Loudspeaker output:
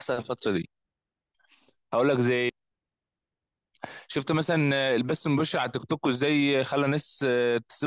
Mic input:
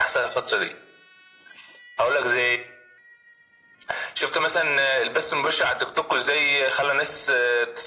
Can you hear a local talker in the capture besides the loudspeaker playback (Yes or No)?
No